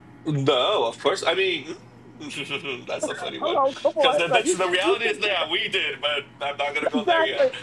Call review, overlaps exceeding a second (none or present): present